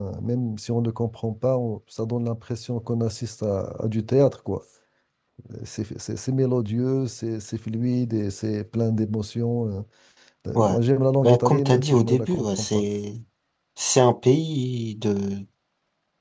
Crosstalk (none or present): present